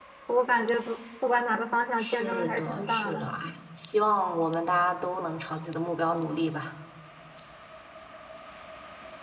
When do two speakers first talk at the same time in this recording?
2.0 s

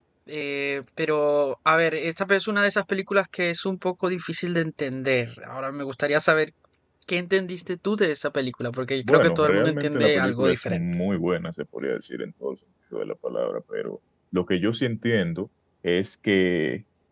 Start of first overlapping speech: 9.0 s

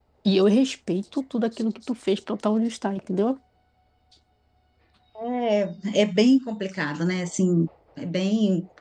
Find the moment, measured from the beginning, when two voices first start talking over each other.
none

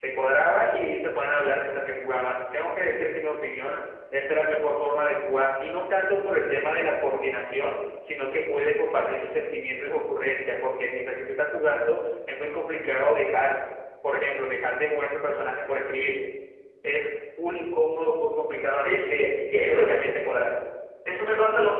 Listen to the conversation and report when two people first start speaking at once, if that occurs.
18.8 s

